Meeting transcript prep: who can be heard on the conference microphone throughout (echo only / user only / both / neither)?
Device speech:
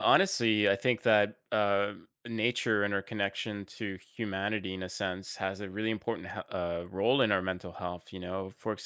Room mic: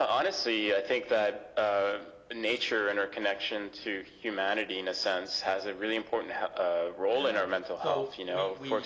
both